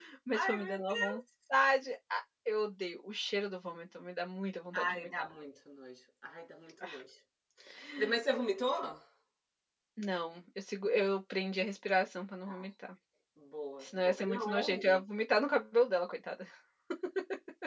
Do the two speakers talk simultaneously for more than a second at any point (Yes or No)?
Yes